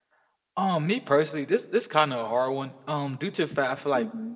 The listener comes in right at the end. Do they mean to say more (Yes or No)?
No